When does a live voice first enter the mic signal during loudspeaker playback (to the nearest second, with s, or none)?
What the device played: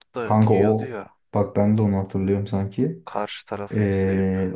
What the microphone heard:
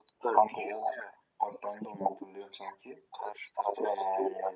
none